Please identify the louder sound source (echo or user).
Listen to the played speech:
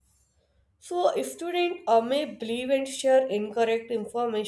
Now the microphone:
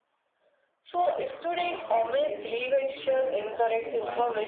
echo